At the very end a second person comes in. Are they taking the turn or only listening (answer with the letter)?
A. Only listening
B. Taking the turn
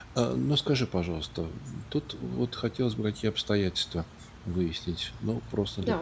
A